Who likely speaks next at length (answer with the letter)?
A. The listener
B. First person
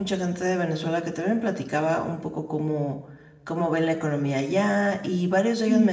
B